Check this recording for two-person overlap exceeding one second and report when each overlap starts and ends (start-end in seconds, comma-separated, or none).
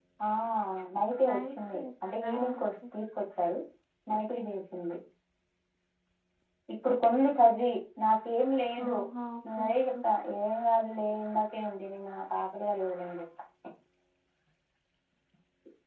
1.3-2.6